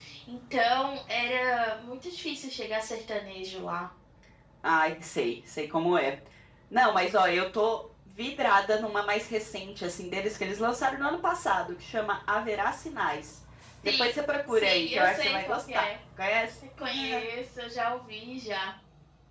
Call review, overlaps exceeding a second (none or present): present